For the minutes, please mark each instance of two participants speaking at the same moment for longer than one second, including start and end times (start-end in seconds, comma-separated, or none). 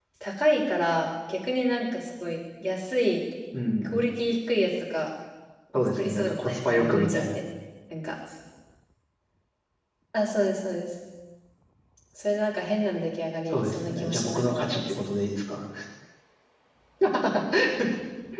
6.0-7.4, 13.5-14.9